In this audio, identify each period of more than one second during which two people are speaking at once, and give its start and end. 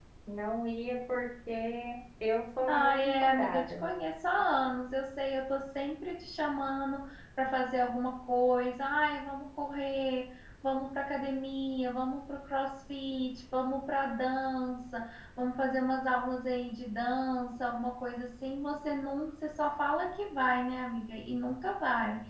2.7-3.9

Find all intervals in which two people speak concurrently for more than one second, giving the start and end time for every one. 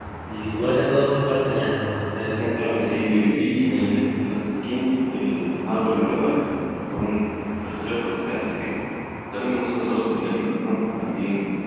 2.3-4.0

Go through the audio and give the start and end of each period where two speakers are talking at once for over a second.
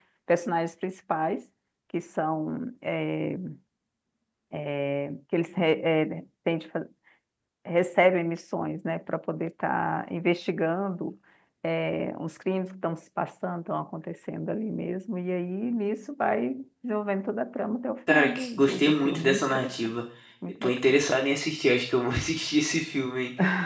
18.1-19.7

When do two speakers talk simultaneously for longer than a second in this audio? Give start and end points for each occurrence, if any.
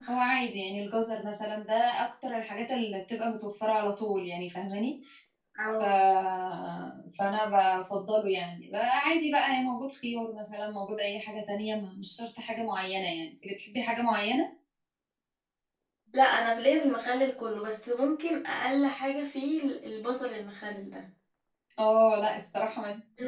none

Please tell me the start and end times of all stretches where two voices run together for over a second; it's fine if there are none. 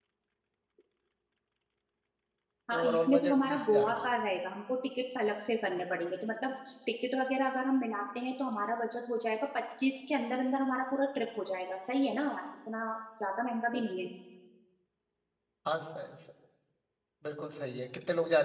2.8-4.1

